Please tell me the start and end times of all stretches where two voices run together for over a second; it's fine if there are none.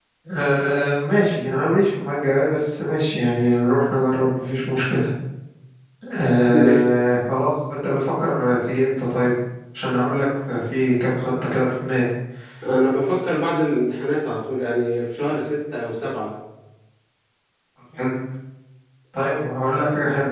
none

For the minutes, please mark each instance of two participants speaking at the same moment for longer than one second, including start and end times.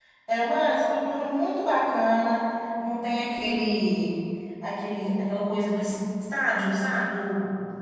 none

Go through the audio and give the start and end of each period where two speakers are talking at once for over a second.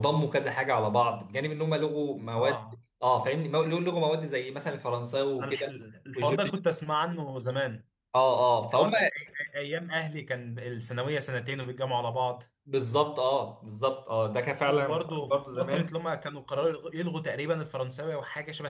14.7-15.9

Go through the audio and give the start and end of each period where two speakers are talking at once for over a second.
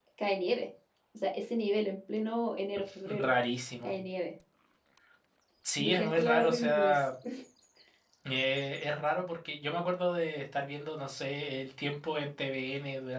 5.8-7.0

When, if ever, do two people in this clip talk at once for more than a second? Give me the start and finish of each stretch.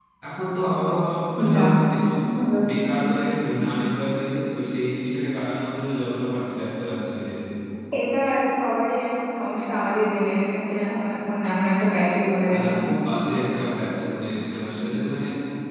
none

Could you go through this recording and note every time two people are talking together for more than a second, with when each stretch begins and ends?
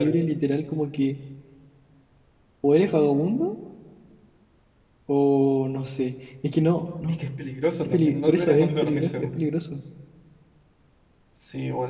7.8-9.4

